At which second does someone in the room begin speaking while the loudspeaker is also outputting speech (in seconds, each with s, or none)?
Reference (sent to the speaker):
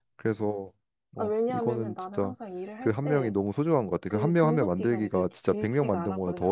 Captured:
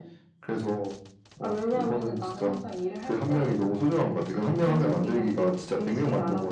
none